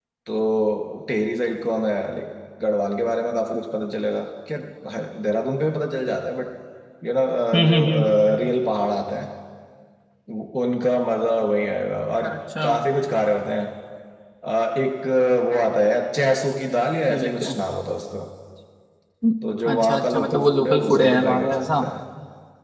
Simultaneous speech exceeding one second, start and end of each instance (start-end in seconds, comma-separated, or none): 19.7-21.8